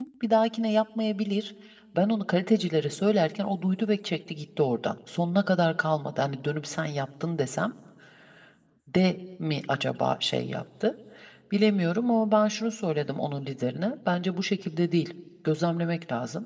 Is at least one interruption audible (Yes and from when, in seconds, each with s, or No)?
No